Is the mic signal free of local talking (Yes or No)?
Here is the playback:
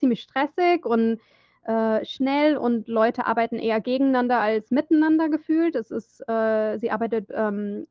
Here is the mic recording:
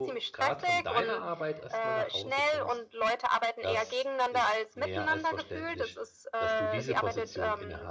No